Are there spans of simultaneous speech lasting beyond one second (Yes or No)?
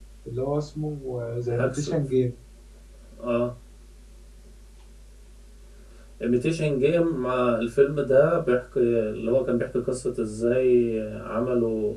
No